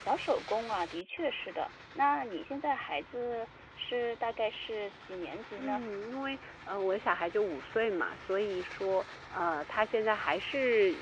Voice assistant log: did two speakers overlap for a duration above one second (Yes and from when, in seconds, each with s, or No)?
No